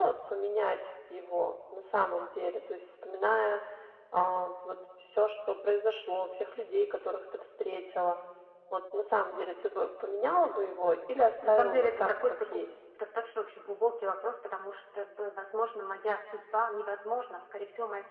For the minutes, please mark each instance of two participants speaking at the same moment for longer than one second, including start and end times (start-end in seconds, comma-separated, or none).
11.4-12.7